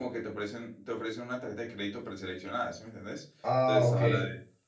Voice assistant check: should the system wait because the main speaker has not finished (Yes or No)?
Yes